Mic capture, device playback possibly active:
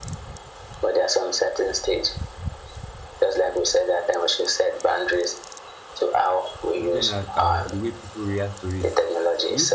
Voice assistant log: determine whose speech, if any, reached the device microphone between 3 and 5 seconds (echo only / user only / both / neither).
echo only